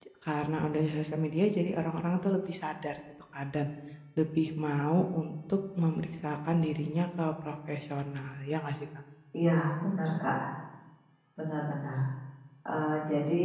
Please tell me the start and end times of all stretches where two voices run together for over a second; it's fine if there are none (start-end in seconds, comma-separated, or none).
none